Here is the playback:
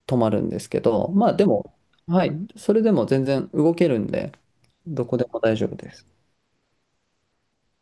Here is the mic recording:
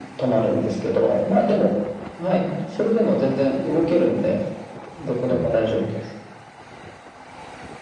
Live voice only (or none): うん、